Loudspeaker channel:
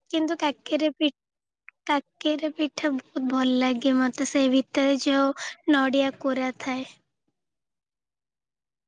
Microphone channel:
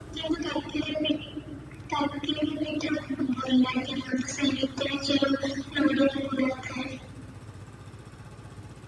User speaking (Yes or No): No